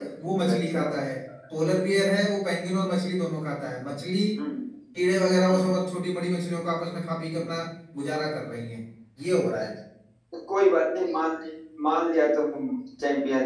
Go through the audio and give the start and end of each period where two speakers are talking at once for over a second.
none

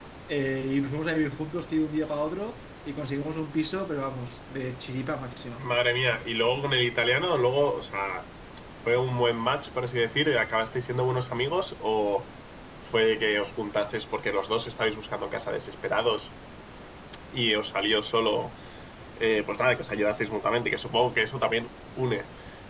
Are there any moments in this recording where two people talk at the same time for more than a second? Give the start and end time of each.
none

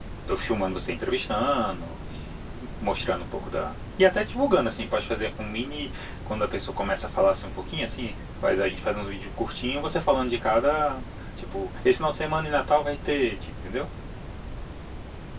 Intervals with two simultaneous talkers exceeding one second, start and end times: none

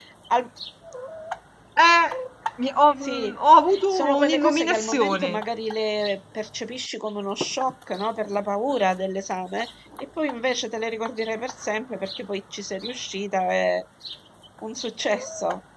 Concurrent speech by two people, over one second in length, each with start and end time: 3.9-5.3

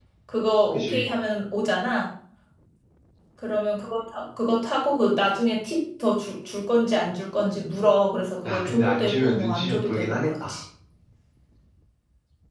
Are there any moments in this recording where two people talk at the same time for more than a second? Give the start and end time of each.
8.4-10.6

